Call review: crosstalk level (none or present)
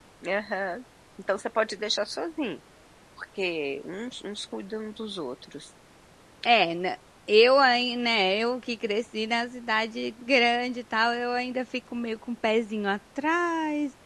none